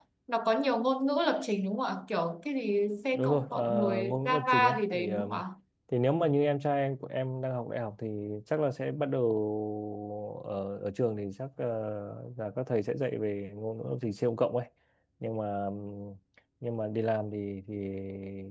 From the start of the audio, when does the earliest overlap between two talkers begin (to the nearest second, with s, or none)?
3 s